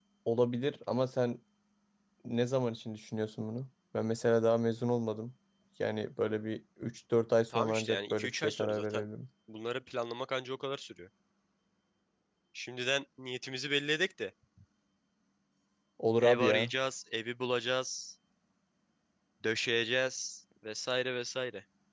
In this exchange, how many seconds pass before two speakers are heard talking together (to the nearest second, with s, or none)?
8 s